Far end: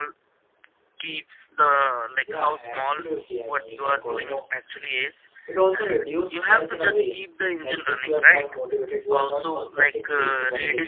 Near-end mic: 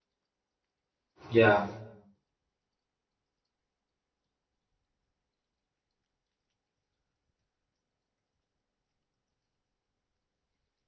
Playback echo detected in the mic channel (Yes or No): No